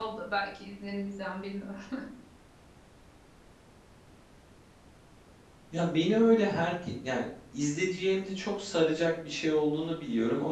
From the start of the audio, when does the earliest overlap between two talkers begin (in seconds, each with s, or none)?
none